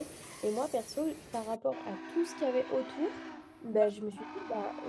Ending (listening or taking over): listening